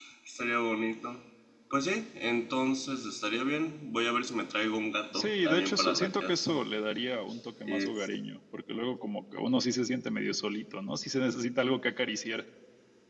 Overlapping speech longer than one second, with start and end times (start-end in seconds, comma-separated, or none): 5.1-6.6